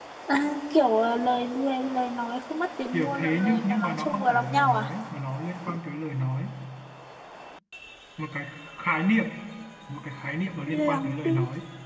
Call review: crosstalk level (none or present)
present